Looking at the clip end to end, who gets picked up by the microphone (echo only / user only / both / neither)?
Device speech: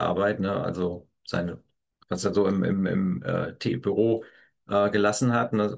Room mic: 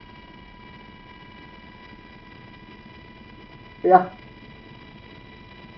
user only